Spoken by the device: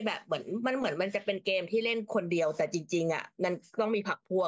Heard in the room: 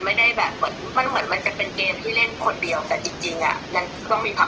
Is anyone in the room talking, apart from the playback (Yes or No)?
No